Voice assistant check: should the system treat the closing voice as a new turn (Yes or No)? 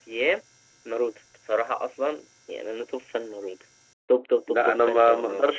Yes